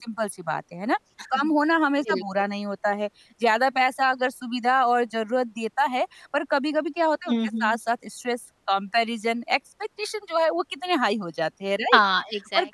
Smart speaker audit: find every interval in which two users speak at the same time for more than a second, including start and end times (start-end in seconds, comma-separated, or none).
none